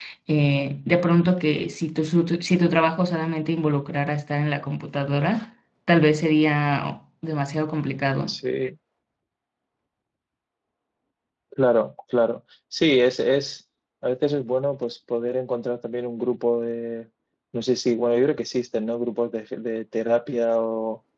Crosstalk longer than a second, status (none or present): none